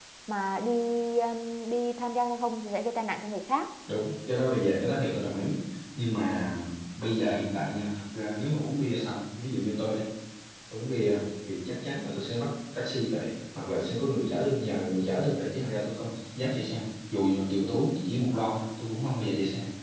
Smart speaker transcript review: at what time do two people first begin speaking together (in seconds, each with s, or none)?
none